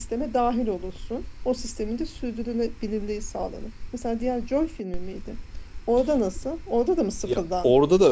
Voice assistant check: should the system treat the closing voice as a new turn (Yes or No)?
Yes